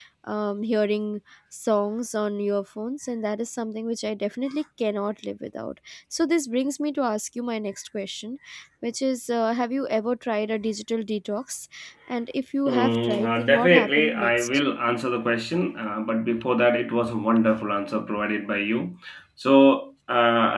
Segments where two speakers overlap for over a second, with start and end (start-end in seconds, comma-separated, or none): 12.7-14.5